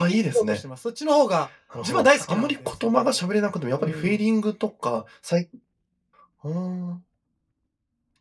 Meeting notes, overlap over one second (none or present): present